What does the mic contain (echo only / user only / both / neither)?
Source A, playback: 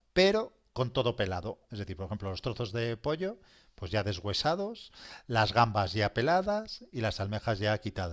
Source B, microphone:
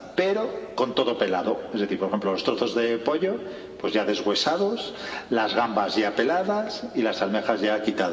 echo only